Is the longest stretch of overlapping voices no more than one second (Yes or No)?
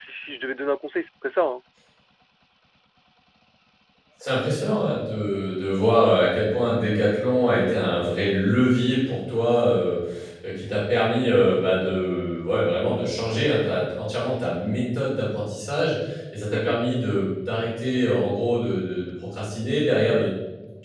Yes